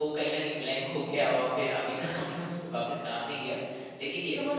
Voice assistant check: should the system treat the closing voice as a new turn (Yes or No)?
Yes